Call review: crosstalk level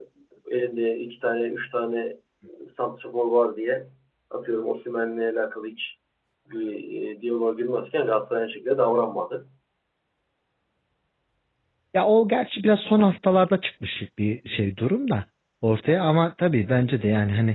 none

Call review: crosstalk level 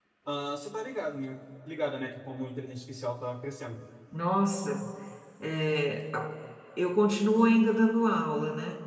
none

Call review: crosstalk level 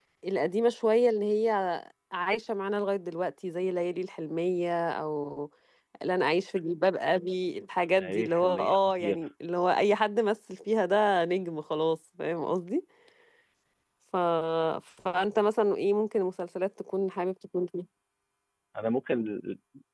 present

